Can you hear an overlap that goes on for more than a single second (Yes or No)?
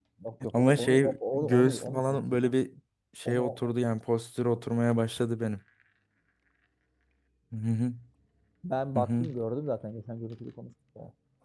Yes